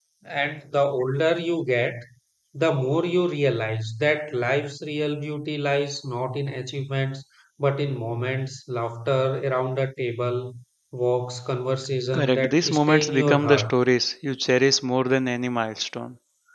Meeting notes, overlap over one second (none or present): present